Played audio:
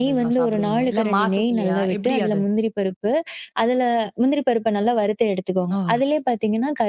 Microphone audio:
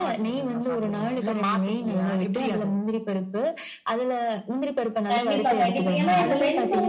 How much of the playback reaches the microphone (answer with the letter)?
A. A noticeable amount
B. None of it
A